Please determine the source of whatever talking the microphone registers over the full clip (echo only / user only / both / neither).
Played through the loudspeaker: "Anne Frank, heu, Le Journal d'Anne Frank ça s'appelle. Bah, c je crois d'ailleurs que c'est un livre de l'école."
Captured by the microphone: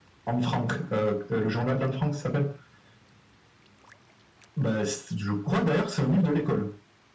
echo only